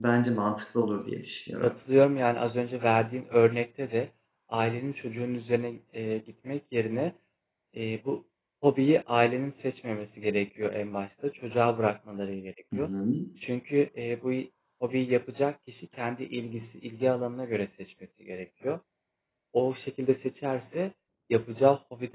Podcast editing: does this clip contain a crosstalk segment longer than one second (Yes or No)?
No